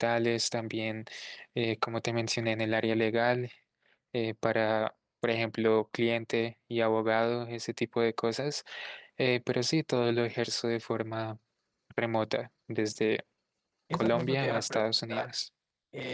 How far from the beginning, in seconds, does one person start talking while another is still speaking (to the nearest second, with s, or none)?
14 s